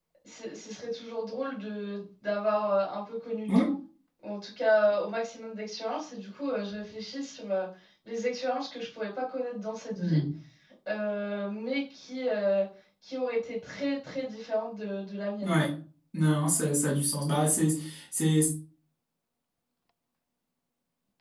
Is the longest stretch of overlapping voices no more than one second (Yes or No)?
Yes